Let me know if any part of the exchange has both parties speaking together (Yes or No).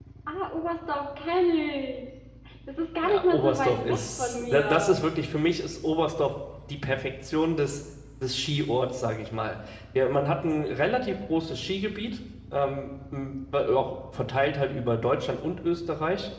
Yes